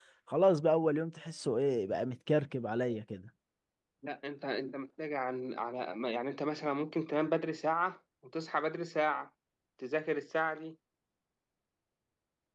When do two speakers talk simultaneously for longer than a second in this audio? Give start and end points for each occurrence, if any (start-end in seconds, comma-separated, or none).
none